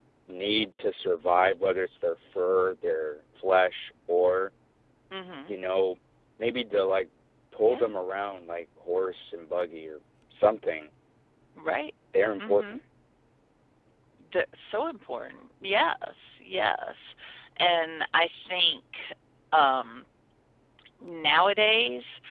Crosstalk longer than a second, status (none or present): none